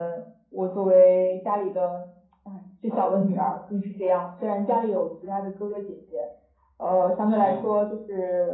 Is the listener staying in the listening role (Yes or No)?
Yes